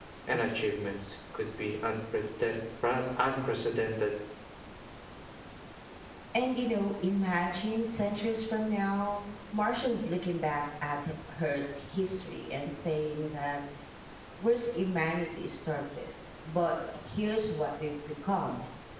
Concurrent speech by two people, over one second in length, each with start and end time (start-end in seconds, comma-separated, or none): none